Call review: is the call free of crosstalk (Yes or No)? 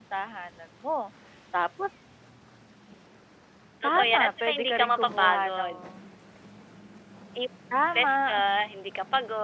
No